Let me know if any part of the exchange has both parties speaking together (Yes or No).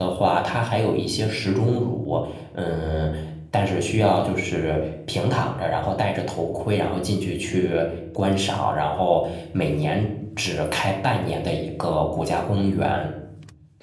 No